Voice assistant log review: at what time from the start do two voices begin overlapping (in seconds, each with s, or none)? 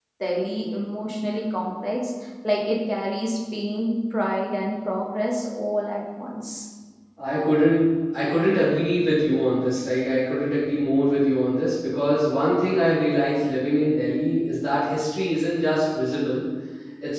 none